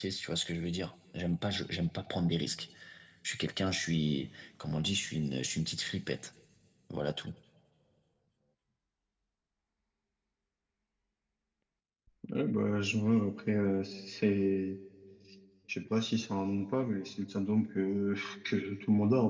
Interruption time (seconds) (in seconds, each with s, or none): none